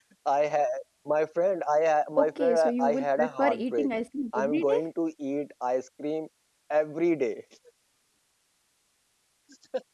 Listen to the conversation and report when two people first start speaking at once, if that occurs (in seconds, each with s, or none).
2.2 s